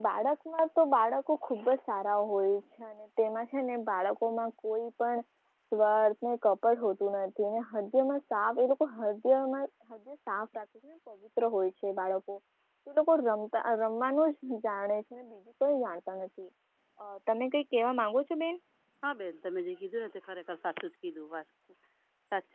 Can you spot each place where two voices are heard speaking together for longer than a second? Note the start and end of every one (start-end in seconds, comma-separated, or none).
none